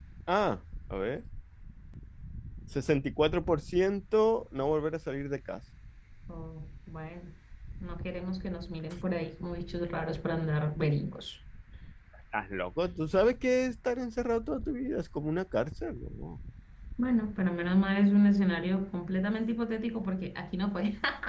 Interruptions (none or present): none